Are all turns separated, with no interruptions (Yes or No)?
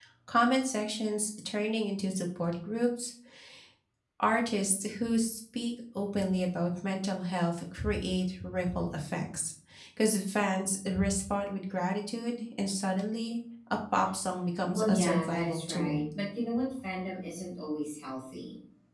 No